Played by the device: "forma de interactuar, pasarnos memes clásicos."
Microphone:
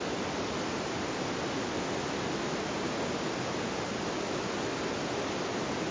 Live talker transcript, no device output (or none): none